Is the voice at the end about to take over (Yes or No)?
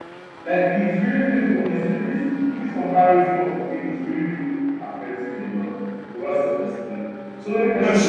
No